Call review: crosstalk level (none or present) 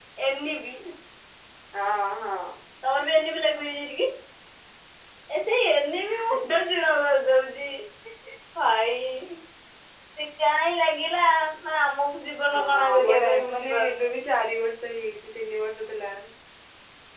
present